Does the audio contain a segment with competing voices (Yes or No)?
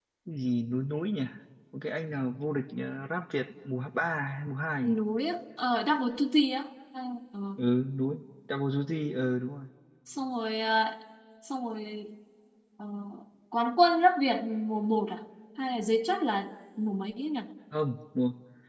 No